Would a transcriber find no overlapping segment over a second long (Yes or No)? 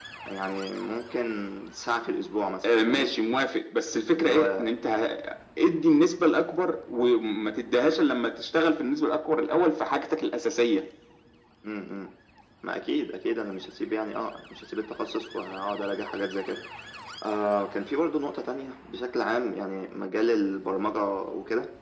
Yes